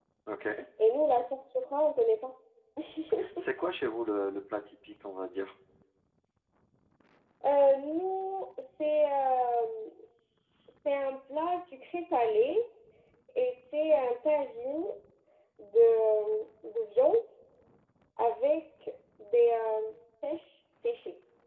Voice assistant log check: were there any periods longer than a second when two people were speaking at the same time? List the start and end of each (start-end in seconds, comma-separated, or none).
none